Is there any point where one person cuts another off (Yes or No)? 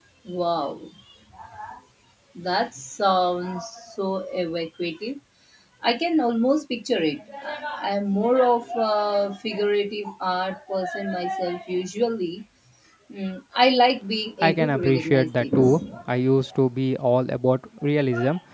Yes